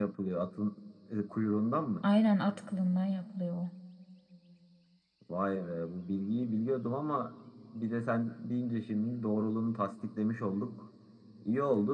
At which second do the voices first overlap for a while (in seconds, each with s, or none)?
none